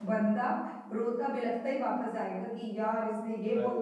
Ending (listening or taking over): listening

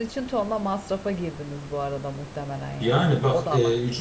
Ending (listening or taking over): taking over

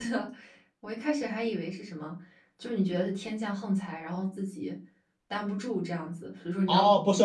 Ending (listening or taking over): taking over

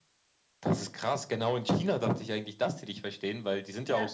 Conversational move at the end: listening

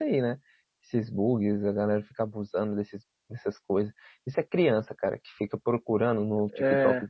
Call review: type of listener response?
listening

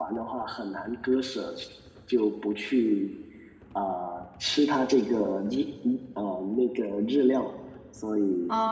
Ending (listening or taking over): taking over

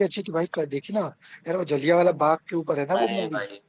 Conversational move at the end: taking over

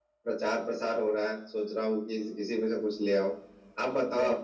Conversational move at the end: taking over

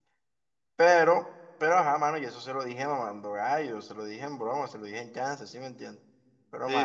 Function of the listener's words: listening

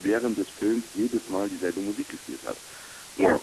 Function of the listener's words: listening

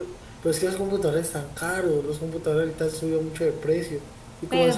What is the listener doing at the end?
listening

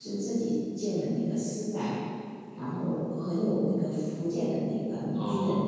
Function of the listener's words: listening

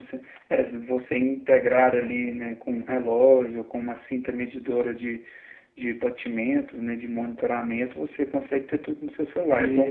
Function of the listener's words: taking over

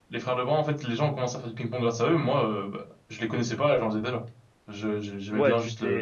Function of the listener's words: taking over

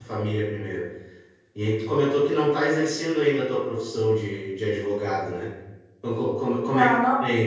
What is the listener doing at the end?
listening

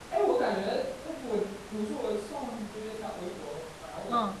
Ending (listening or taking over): listening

